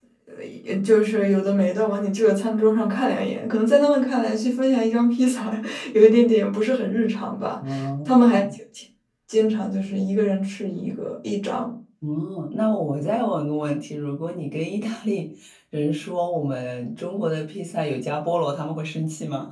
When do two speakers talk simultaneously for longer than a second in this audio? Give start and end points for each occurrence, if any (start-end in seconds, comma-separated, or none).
none